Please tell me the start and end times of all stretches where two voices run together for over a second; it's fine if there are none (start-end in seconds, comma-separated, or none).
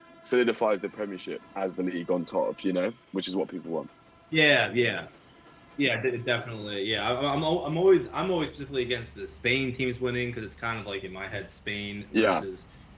none